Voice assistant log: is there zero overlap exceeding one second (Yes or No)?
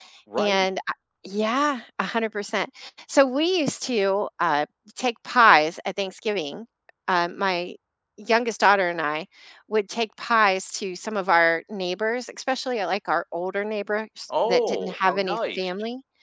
No